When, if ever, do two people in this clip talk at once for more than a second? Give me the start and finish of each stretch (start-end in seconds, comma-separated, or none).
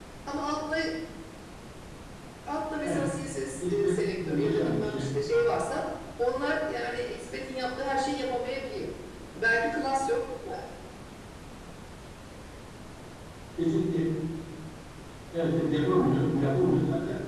3.6-5.1